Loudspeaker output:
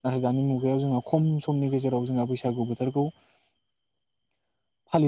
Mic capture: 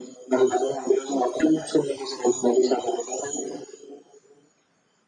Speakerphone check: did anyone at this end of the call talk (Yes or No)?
No